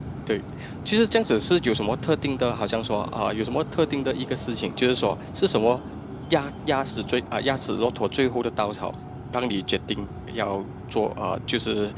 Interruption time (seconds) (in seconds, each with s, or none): none